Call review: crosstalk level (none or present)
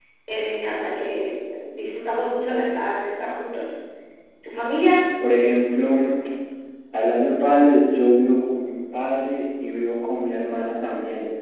none